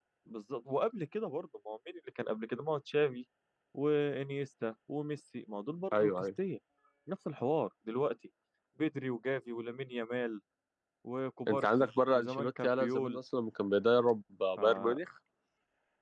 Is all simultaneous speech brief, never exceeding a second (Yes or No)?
No